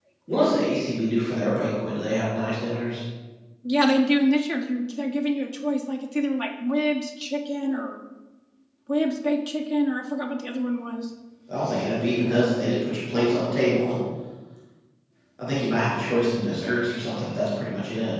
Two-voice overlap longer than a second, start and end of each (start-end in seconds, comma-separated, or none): none